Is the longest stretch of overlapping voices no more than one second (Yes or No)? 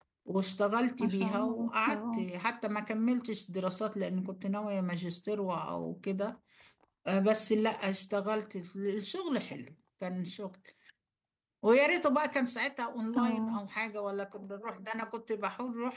No